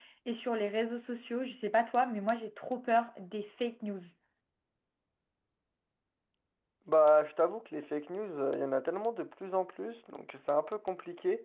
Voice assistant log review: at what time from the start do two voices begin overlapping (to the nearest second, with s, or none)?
none